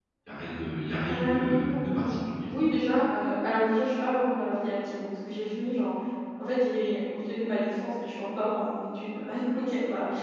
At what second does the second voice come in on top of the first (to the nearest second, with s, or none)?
1 s